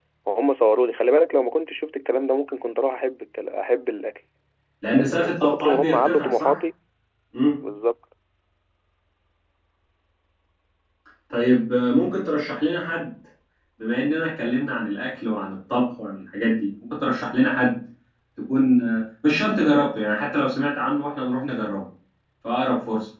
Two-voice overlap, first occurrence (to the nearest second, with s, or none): 5 s